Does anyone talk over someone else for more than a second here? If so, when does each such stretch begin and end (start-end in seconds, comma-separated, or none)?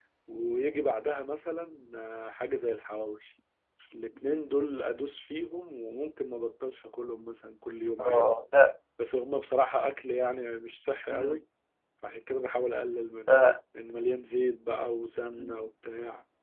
none